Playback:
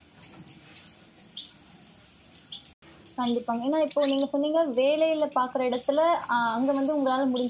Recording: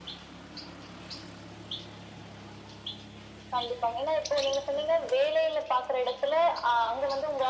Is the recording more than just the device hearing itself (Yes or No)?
No